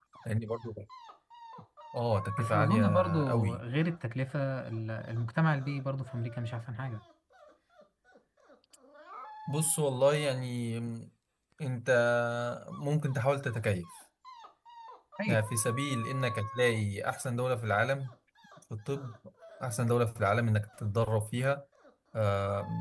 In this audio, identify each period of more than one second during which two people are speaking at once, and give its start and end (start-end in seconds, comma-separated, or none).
2.4-3.6